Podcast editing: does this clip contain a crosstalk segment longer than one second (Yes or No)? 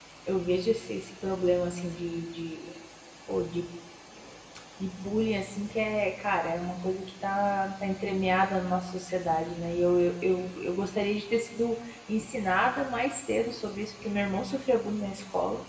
No